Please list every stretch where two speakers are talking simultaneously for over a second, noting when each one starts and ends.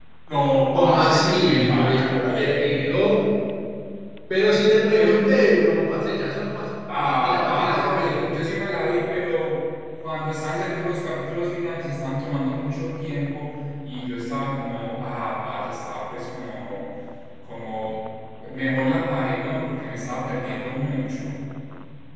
0.7-3.0, 6.9-8.3

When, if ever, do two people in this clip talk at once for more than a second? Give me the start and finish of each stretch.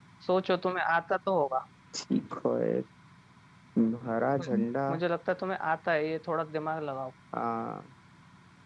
none

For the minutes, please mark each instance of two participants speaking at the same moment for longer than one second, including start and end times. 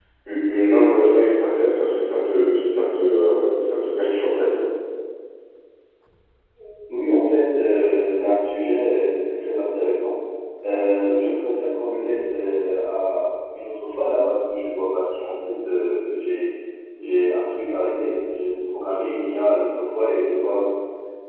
none

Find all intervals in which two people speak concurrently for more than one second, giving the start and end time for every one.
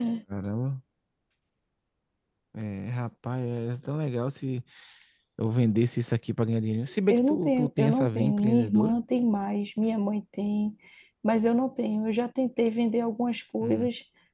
7.1-8.9

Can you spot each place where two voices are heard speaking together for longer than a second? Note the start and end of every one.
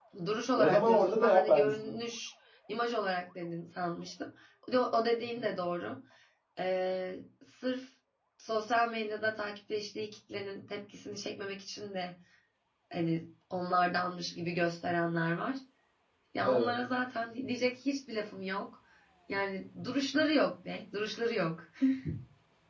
0.6-1.9

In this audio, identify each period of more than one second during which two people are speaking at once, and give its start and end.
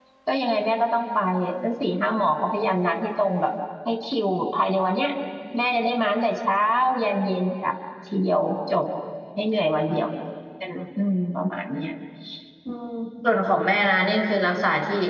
none

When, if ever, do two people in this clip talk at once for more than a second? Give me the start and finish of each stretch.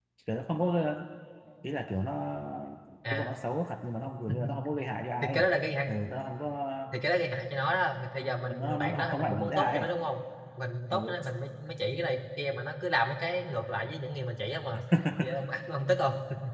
8.4-9.9

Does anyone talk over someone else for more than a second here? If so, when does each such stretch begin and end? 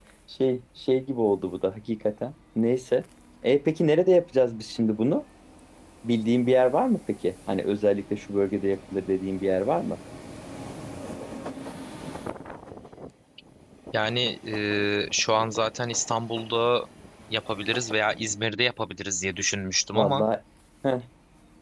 none

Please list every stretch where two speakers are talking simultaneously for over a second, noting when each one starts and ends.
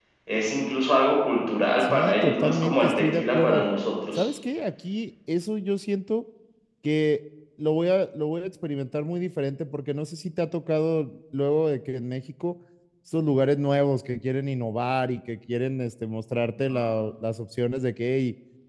1.8-3.6

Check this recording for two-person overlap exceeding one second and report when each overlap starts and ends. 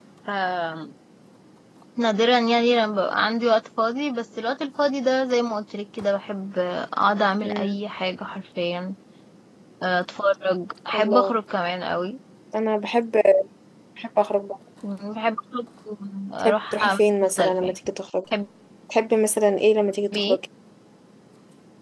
16.4-17.8

